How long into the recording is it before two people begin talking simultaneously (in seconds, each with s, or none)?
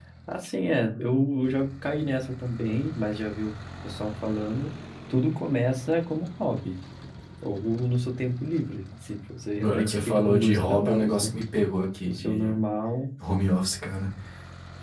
9.6 s